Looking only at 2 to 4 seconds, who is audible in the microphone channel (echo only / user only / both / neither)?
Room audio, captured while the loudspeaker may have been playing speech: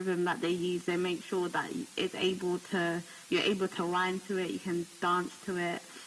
echo only